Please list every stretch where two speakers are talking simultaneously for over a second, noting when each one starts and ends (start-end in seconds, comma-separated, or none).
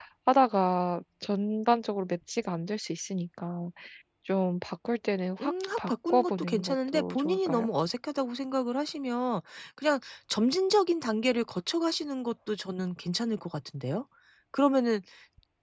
5.4-7.7